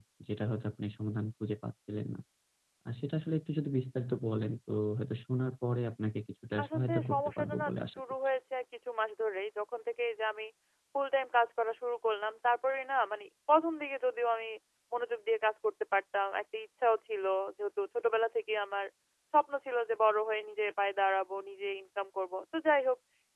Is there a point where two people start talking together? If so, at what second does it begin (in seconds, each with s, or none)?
6.6 s